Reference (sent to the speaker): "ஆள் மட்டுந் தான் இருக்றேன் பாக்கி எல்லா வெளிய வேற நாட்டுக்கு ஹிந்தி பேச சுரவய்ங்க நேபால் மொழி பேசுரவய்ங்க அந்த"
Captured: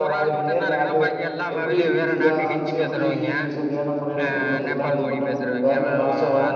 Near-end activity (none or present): present